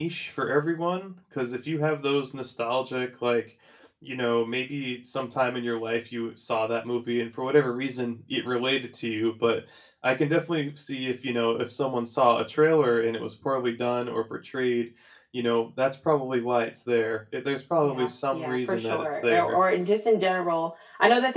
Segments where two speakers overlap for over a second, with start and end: 17.8-19.6

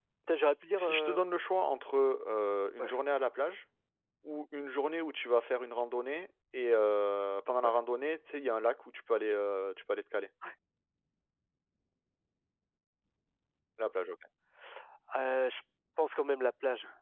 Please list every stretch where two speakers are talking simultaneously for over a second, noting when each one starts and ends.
none

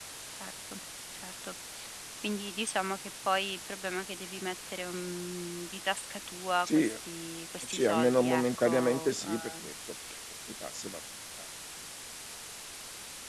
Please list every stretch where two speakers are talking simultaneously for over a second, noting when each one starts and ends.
7.7-9.6

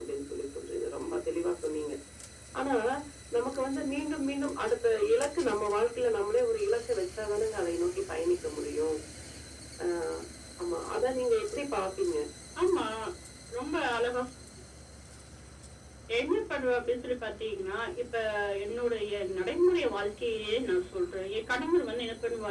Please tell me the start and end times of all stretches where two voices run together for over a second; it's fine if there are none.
none

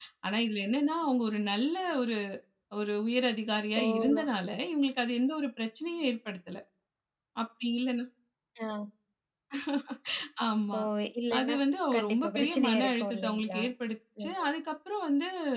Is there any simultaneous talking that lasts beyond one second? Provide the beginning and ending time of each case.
11.9-13.6

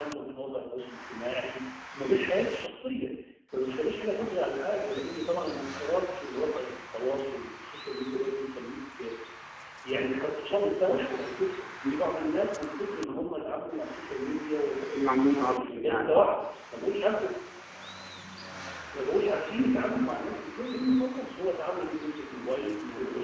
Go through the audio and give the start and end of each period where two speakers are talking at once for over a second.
14.9-16.3

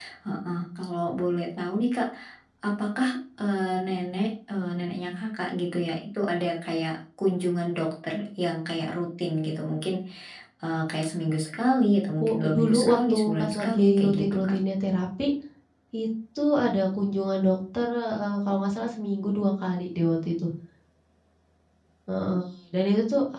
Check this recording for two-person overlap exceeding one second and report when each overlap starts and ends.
12.3-14.6

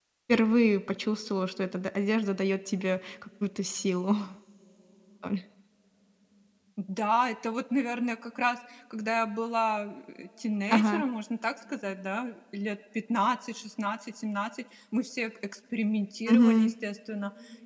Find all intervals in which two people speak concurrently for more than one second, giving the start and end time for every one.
none

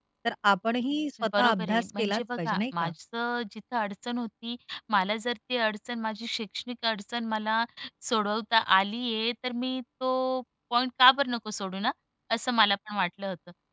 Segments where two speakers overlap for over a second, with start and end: 1.4-2.9

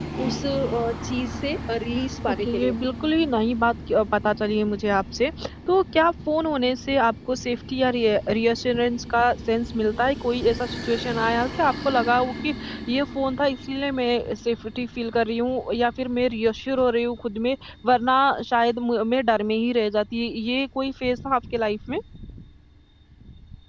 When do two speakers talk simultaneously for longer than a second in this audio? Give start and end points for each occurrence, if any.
none

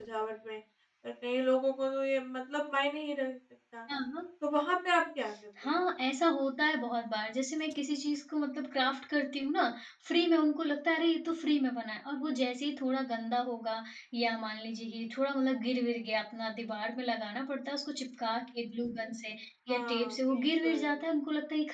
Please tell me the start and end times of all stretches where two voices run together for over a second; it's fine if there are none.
19.7-20.9

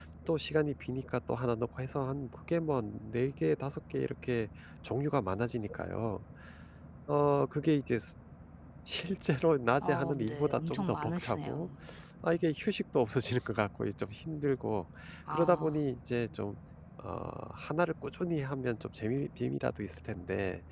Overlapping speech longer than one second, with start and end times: 9.8-11.7

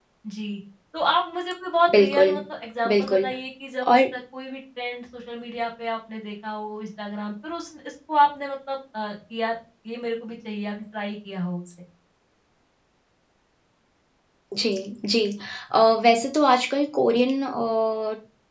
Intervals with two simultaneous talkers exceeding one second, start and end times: none

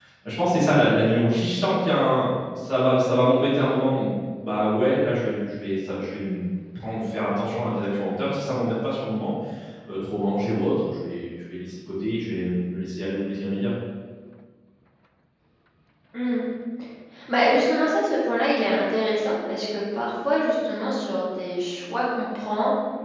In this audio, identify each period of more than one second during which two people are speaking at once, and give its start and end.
none

